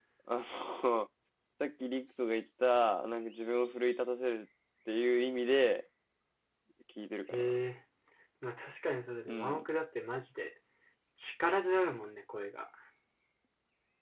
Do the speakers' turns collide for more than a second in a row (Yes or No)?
No